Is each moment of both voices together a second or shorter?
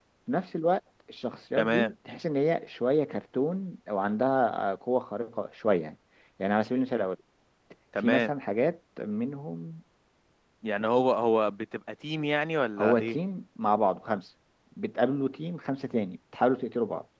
Yes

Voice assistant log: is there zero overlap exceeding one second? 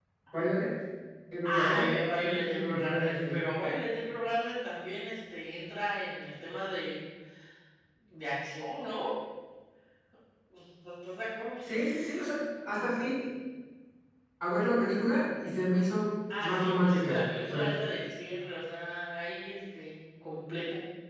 No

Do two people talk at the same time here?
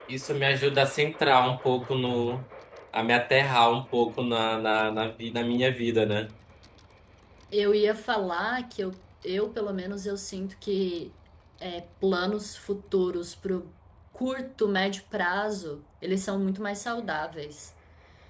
No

